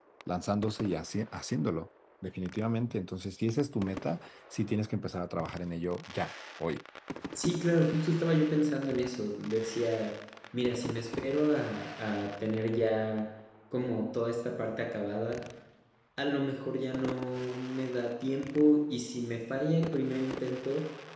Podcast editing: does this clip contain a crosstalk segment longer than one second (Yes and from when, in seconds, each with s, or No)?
No